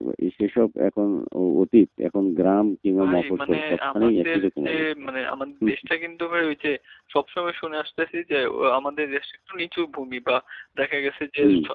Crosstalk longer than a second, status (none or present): present